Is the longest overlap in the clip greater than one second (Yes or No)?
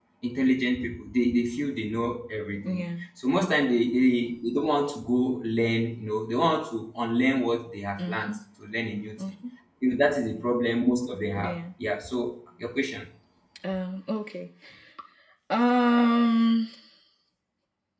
No